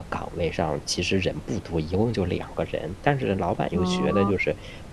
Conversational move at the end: listening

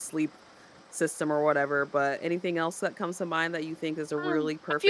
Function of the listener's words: taking over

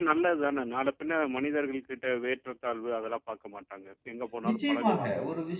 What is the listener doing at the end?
taking over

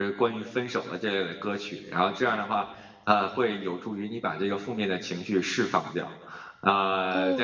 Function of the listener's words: taking over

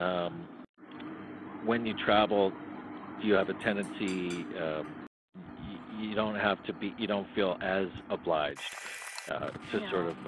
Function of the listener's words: listening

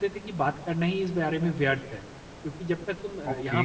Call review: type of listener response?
listening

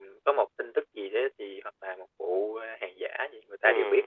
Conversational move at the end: taking over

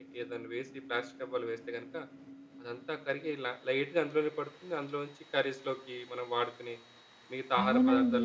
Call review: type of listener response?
taking over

